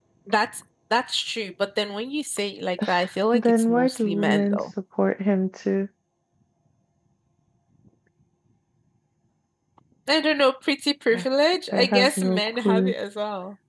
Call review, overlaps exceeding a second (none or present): present